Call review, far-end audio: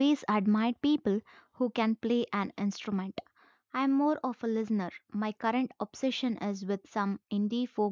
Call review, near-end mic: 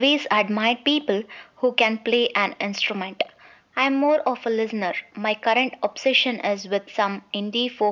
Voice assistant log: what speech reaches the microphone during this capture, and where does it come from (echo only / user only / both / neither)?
echo only